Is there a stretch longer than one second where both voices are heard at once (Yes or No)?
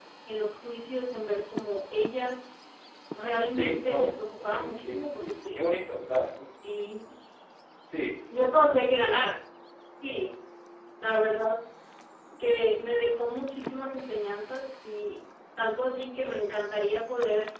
Yes